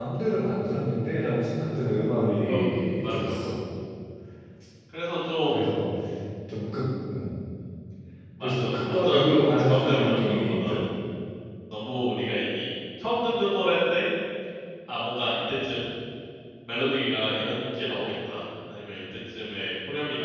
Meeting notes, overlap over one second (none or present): present